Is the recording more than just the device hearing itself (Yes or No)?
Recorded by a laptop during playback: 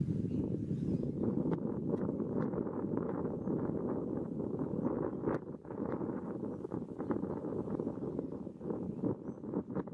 No